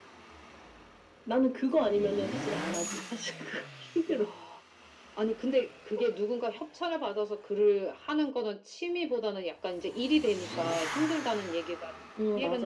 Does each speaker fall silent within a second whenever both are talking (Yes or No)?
Yes